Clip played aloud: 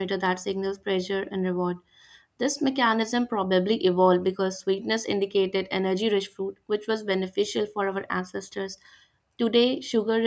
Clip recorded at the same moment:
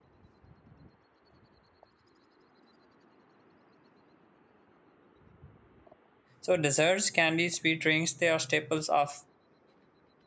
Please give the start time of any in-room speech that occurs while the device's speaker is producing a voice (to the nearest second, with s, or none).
6 s